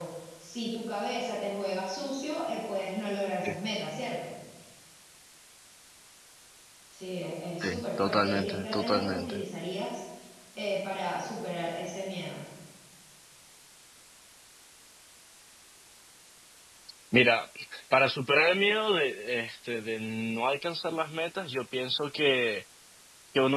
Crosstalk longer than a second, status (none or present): present